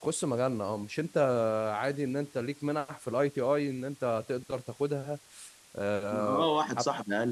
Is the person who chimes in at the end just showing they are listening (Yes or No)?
No